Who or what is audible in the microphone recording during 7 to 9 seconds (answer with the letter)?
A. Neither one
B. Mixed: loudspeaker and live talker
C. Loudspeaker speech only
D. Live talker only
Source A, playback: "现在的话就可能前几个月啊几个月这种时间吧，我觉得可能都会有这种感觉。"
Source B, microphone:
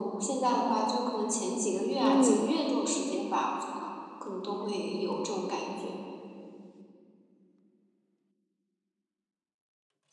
A